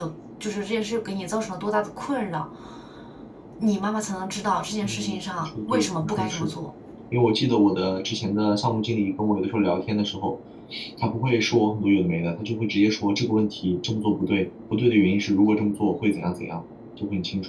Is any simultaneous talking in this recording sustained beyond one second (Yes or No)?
Yes